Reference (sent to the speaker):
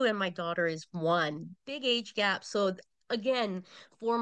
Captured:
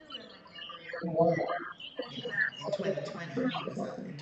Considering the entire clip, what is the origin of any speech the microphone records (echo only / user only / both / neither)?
both